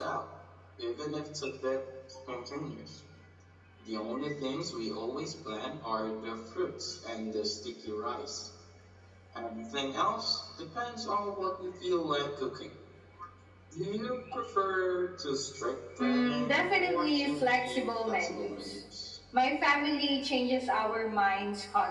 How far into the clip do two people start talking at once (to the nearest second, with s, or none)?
16 s